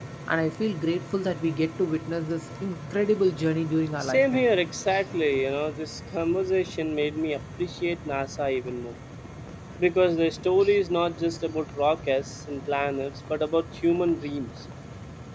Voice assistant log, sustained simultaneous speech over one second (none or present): none